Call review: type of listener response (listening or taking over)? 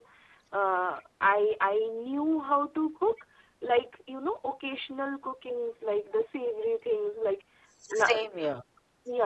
listening